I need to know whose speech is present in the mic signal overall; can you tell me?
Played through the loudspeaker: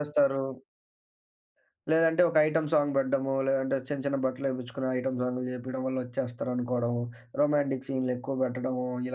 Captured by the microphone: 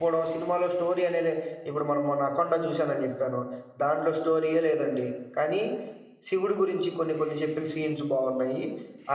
user only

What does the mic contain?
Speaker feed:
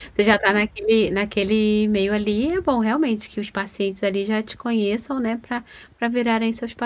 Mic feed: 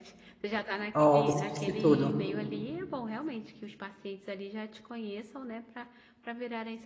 both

